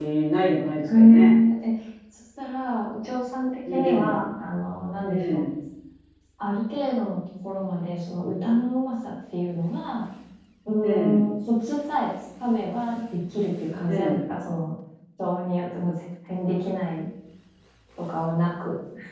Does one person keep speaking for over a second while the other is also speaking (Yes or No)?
No